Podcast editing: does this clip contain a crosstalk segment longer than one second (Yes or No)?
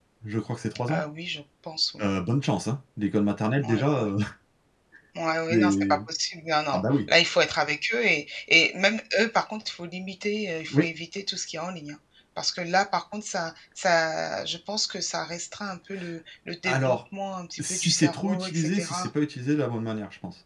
Yes